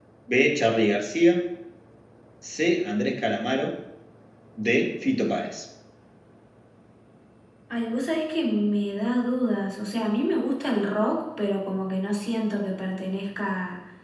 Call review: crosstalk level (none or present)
none